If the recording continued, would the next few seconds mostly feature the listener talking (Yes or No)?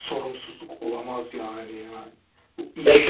Yes